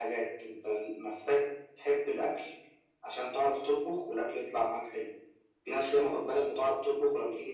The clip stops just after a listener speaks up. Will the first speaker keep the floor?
Yes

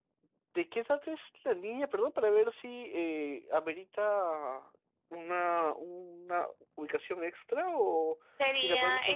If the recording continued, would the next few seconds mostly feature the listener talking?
Yes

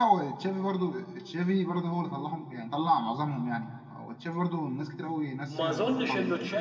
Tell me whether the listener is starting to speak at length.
Yes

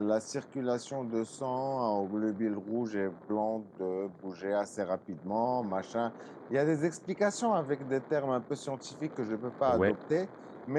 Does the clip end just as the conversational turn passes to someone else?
No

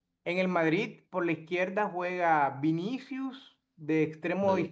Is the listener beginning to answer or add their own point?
No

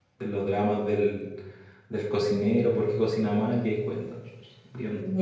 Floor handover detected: Yes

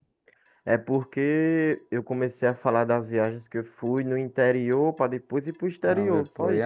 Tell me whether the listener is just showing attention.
No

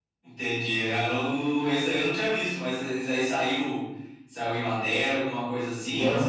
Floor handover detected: Yes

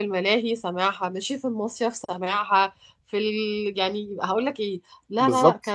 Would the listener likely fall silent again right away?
Yes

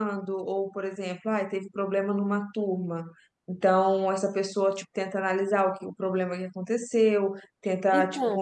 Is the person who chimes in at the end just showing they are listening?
Yes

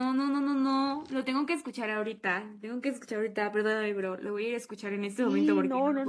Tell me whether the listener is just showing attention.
No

